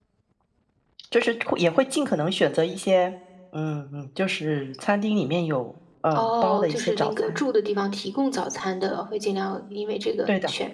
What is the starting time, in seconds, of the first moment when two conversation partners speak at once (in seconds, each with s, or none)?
6.1 s